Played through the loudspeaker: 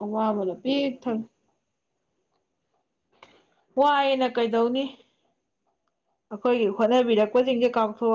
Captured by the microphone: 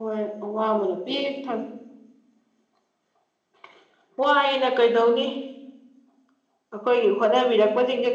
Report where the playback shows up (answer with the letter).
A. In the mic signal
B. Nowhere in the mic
A